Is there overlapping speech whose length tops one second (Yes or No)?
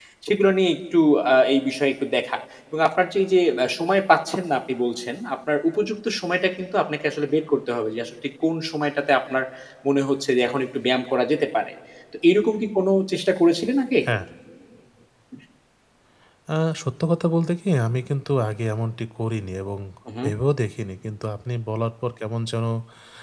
No